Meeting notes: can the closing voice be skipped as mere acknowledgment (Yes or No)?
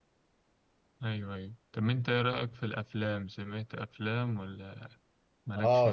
No